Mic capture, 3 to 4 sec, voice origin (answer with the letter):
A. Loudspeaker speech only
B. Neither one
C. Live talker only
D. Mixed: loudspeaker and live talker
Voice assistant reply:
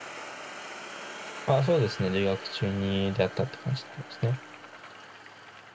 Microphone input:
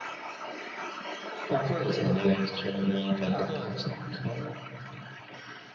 D